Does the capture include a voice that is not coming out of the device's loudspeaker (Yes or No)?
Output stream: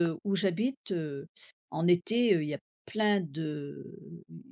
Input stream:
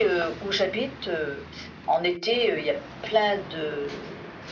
No